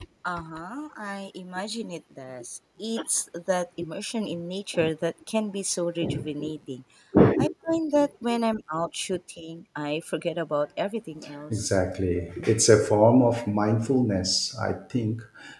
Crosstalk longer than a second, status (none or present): none